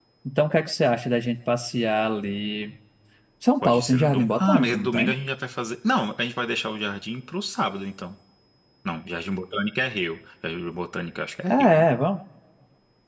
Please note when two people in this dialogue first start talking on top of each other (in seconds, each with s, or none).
3.6 s